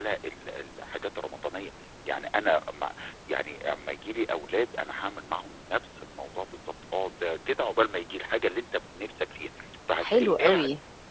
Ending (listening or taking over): taking over